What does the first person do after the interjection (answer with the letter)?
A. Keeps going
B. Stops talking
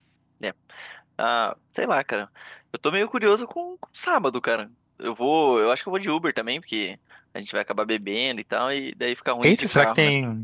B